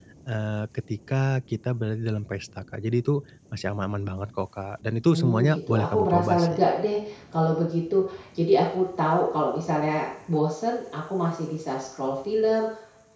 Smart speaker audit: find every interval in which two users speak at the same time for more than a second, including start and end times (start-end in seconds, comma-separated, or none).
5.1-6.7